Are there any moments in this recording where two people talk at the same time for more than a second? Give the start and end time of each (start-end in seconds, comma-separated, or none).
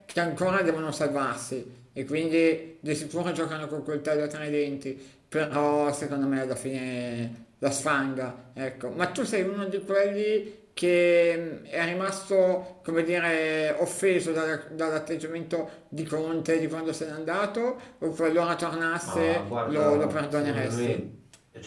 19.0-21.0